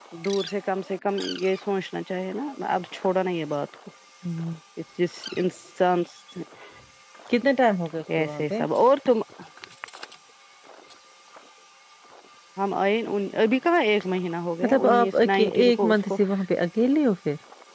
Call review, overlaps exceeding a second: present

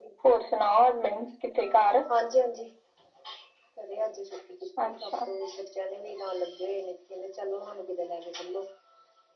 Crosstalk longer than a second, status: none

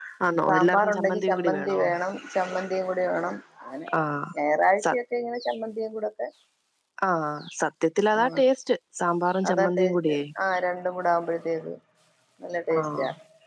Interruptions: present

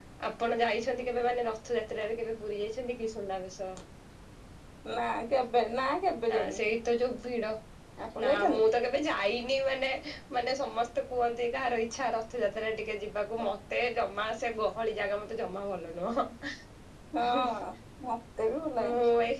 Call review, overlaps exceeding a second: none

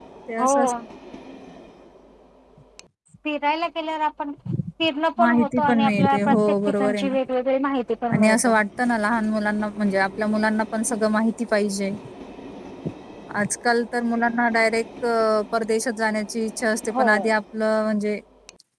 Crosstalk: present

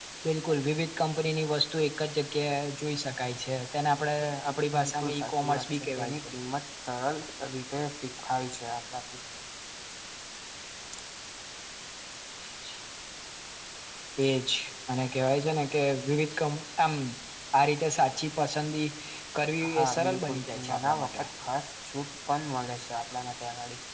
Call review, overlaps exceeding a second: present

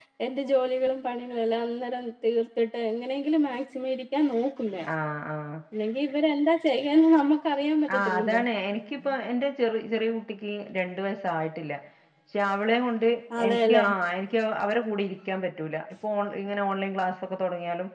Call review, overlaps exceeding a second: none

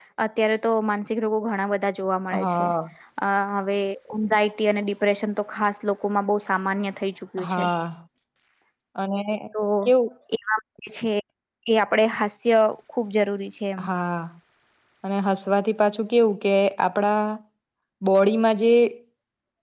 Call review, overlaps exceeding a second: none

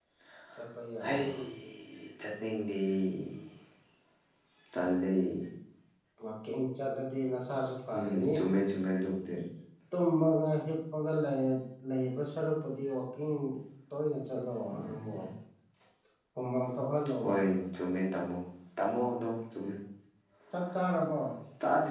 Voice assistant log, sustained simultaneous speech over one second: none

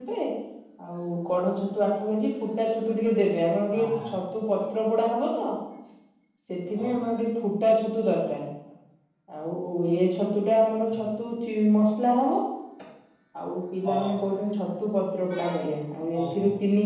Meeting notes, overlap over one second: none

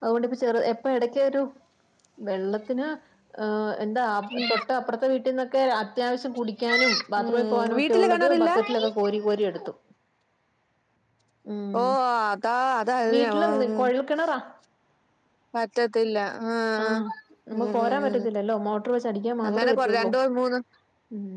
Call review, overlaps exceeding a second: present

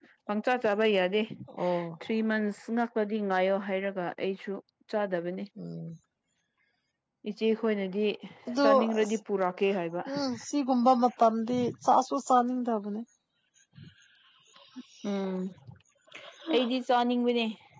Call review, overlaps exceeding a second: none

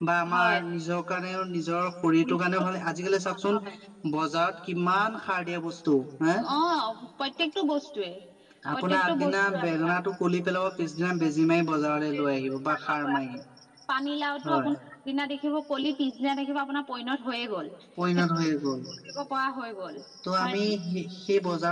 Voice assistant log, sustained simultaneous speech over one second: present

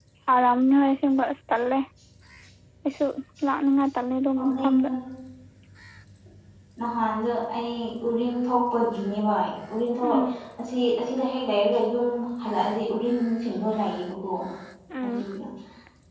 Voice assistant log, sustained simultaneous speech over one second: none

